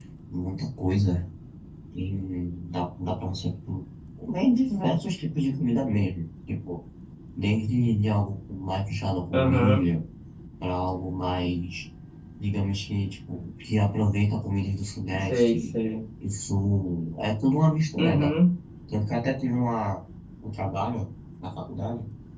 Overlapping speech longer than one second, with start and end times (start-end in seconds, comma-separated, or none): none